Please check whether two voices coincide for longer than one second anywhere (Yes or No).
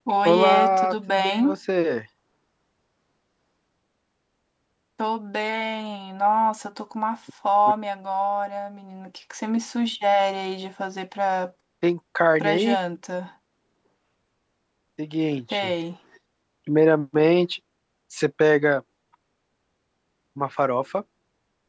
Yes